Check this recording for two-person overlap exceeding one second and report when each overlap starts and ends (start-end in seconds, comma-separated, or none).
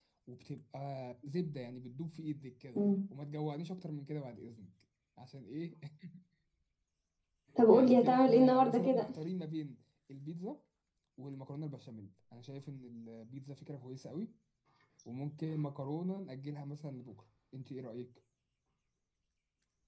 7.7-9.1